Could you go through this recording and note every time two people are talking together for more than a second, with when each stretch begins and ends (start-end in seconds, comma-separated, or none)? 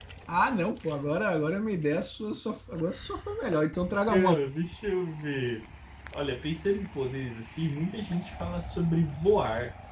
none